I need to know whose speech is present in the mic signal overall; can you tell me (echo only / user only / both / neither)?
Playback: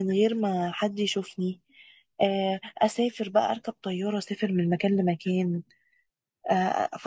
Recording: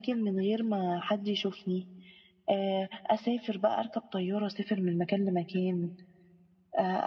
echo only